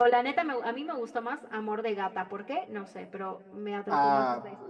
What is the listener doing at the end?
taking over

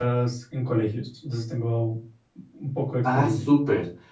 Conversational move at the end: taking over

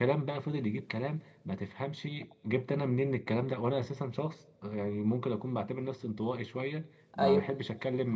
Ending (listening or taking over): listening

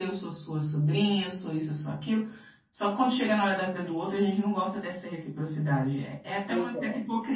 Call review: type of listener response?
listening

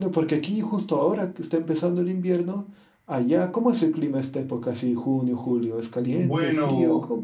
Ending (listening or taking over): taking over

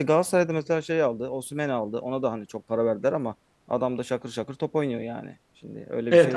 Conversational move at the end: taking over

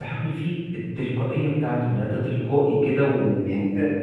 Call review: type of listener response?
listening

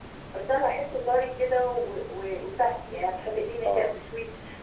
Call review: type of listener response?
listening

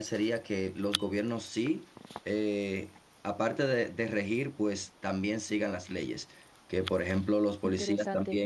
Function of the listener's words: listening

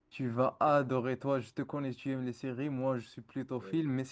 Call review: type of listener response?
listening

